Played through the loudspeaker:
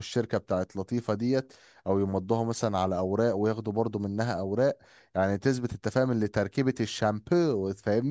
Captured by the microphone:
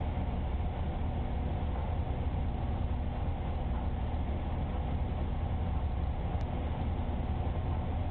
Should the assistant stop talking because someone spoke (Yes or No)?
No